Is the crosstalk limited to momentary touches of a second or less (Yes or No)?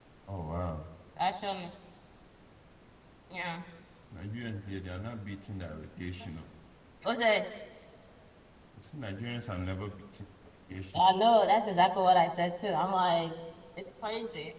Yes